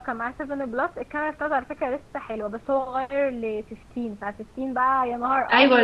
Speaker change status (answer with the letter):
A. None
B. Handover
B